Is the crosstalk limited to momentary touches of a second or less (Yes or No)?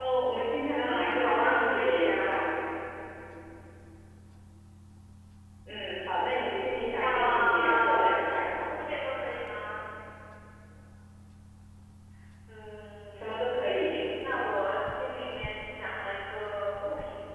No